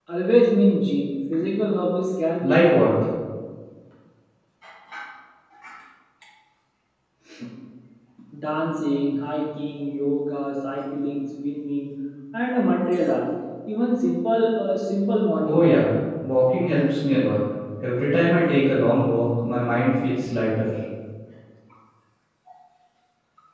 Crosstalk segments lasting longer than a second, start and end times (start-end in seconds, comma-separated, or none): none